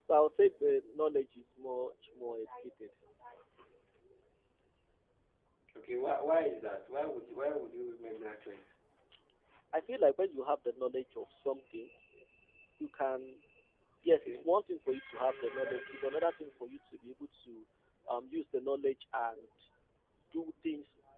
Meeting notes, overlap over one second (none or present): none